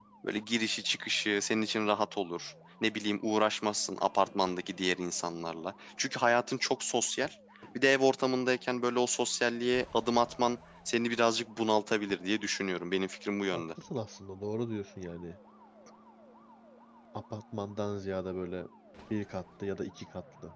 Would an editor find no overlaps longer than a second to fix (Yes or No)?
Yes